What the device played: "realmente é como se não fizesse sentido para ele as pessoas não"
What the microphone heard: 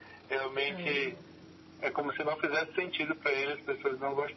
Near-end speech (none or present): present